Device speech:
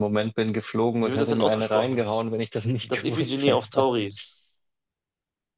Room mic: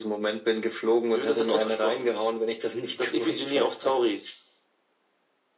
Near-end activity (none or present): none